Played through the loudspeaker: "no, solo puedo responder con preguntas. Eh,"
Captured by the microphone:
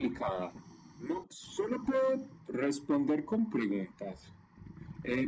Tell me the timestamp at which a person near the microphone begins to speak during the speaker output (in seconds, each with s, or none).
none